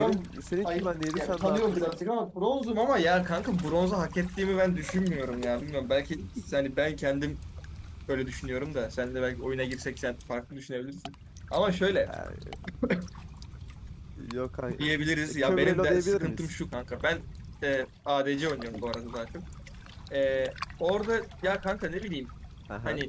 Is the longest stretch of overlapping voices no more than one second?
No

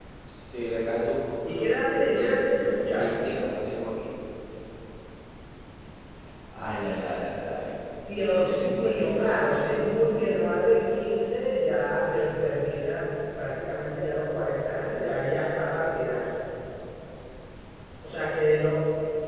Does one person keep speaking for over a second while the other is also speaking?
Yes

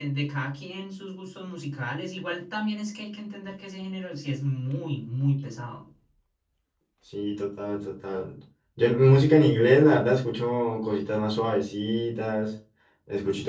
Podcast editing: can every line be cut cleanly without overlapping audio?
Yes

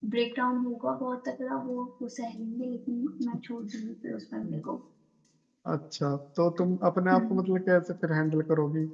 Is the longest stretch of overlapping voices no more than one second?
Yes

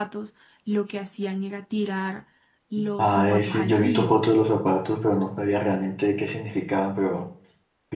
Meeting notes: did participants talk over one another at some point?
Yes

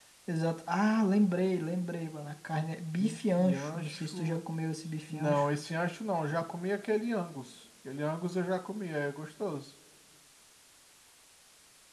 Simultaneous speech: Yes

